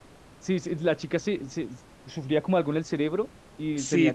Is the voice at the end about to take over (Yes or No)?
Yes